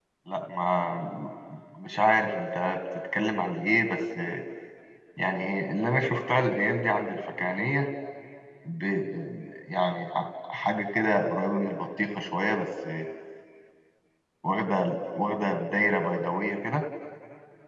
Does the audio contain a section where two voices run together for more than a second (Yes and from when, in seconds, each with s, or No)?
No